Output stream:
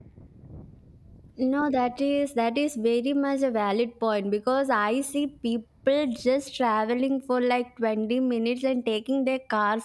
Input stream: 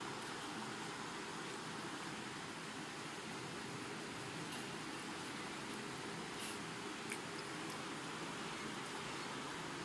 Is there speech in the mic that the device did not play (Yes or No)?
No